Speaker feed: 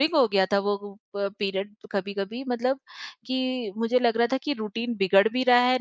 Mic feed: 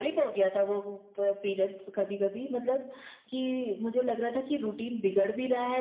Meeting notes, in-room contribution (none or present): none